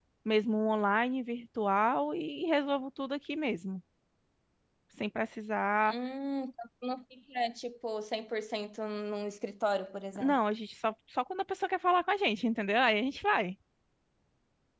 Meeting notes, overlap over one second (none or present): none